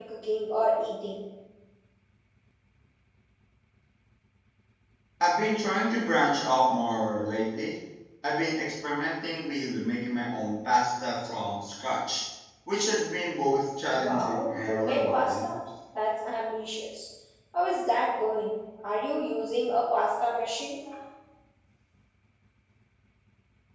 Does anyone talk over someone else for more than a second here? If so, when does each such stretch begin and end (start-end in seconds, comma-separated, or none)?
14.0-15.5